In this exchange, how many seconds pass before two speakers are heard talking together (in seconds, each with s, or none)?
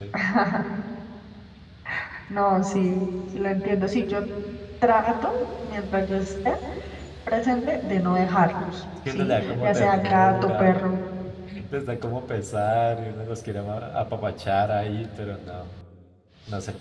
9.1 s